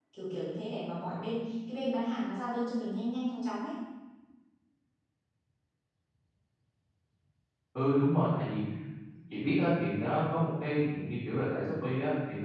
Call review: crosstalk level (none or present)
none